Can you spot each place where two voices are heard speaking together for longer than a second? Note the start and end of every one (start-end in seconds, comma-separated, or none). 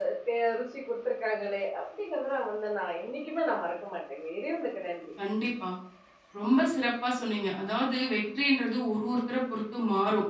none